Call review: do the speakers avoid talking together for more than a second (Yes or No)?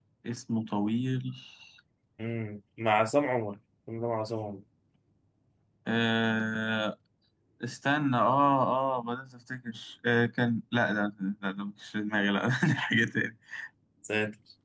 Yes